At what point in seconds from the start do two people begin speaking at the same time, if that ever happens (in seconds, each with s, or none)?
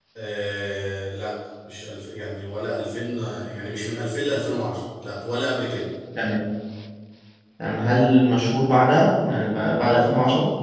none